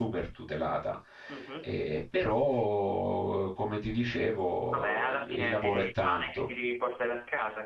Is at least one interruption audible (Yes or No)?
Yes